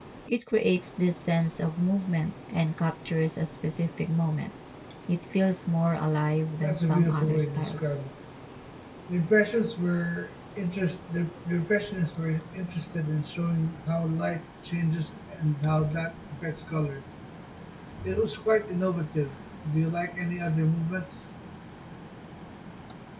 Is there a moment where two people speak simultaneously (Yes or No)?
Yes